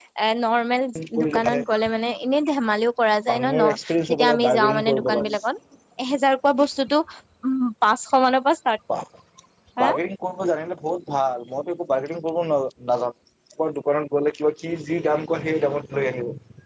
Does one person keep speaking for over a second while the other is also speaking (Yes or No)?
Yes